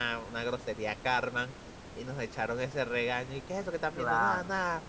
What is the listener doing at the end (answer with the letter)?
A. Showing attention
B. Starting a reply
A